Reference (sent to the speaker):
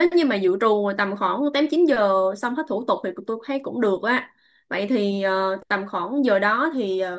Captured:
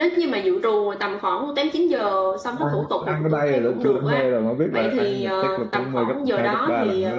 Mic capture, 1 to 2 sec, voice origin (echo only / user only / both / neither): echo only